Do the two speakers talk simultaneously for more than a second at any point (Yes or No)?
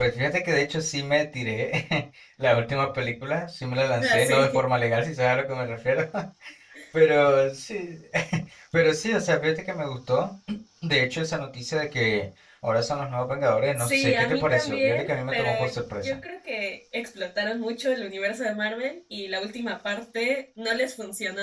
Yes